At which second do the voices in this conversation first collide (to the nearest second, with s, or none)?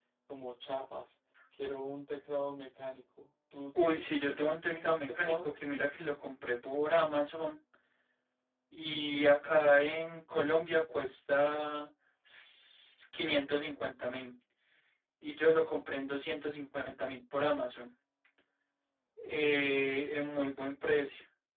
4 s